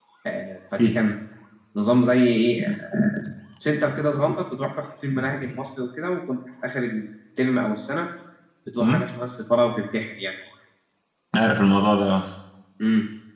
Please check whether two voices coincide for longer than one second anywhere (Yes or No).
No